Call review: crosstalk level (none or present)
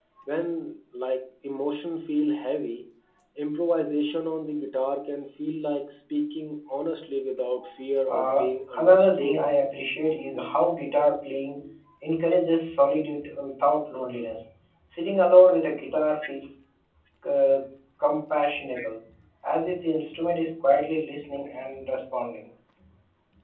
present